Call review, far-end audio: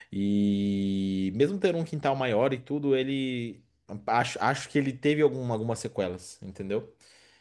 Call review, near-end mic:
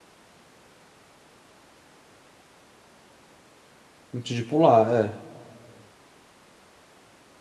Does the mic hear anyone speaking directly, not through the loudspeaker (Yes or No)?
Yes